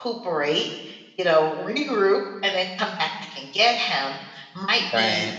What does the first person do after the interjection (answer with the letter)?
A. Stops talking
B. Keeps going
B